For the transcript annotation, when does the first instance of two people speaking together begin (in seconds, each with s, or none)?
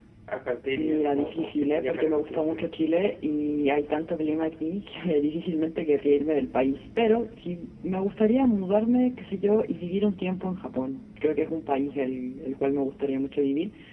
0.8 s